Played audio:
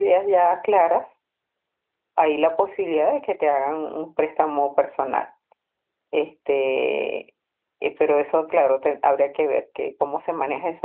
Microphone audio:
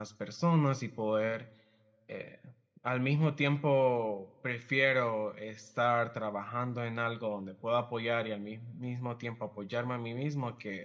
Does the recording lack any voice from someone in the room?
No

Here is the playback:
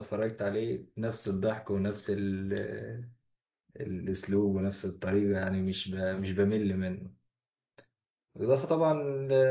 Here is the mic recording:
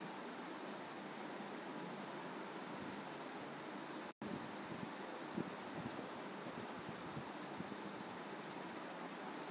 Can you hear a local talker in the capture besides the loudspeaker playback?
No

